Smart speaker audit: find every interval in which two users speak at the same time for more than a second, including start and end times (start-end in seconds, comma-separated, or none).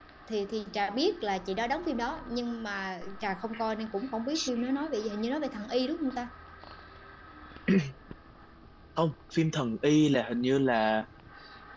none